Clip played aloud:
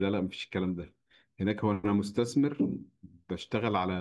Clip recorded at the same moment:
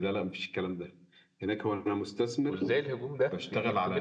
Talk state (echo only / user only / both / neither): both